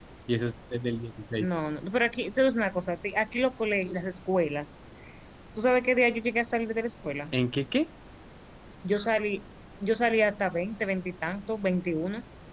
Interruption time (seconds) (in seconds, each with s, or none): none